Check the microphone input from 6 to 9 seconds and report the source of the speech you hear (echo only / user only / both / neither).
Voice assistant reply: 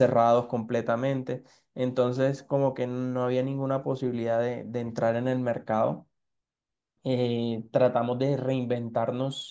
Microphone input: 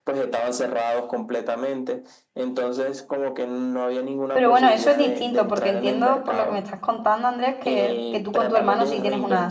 both